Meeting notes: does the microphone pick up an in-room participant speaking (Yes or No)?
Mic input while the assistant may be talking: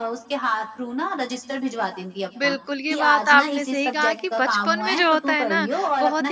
Yes